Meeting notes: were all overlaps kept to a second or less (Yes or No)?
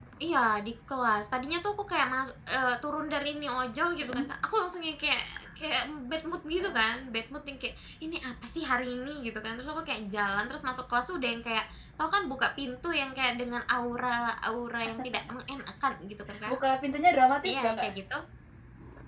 Yes